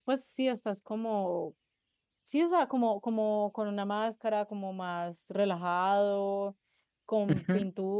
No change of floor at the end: Yes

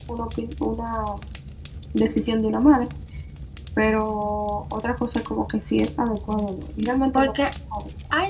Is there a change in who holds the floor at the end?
Yes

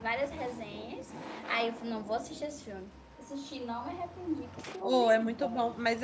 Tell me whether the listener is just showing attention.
No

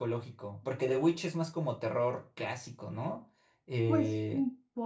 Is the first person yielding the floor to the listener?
Yes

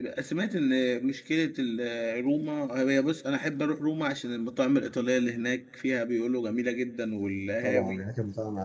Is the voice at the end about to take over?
Yes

